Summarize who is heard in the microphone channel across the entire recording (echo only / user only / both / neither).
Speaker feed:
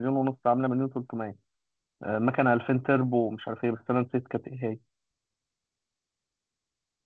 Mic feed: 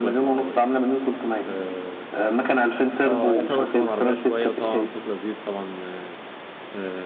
both